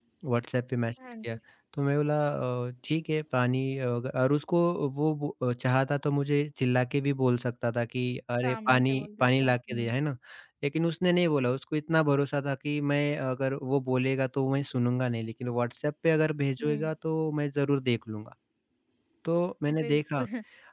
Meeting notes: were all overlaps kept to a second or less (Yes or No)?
No